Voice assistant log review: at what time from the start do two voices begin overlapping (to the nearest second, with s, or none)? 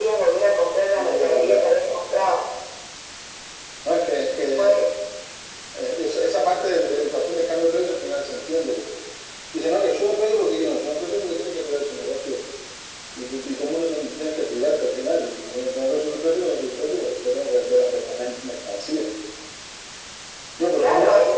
1 s